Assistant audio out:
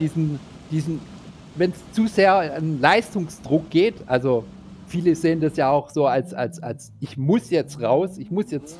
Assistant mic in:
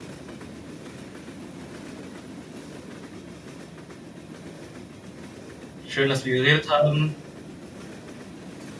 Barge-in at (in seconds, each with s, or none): 5.8 s